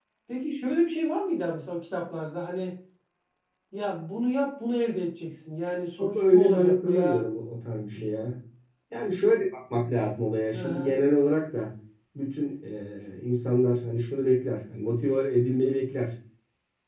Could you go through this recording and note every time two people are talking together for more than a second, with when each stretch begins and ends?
6.0-7.2

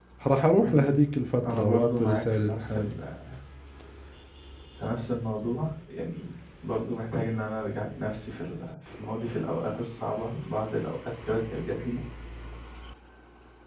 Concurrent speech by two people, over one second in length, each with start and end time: 1.4-3.0

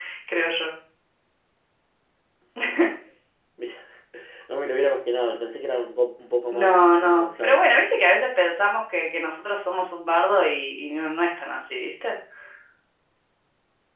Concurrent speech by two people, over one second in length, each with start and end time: 6.5-7.8

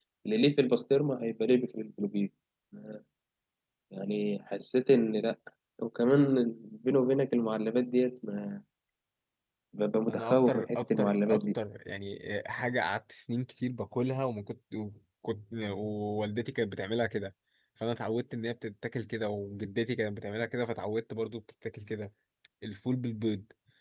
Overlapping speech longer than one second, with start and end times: 10.1-11.4

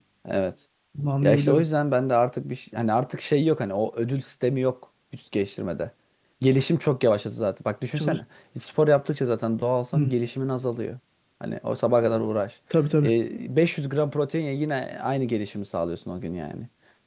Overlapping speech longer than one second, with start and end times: none

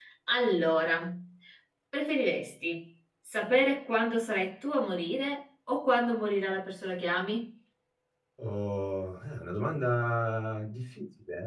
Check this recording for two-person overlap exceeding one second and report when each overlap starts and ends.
none

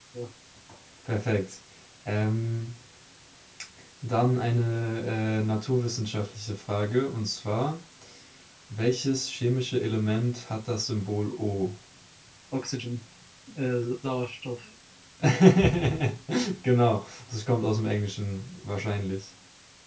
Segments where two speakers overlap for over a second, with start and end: none

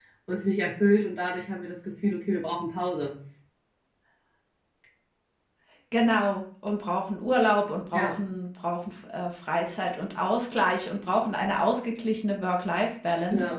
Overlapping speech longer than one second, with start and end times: none

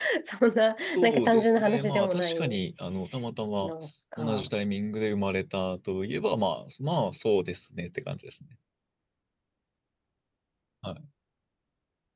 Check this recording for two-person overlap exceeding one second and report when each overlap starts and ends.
0.9-2.6

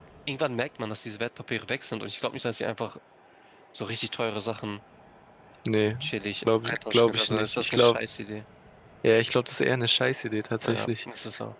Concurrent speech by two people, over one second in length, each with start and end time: 6.6-8.0

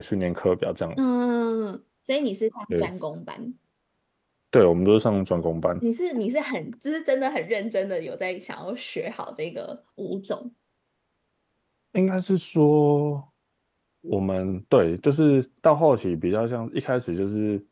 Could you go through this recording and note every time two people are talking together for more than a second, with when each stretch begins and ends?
none

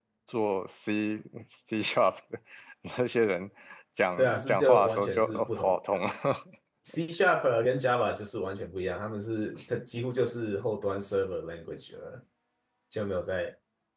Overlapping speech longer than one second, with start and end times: 4.2-6.0

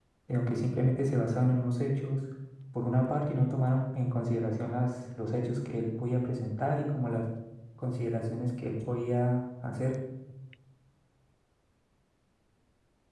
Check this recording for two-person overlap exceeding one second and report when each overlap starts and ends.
none

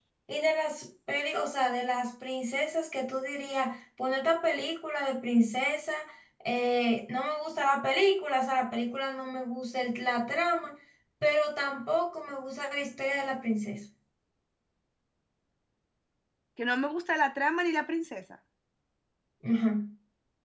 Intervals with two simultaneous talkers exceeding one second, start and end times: none

